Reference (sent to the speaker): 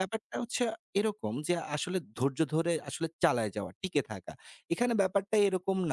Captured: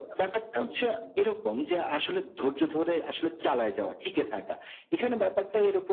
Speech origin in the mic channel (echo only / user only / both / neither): both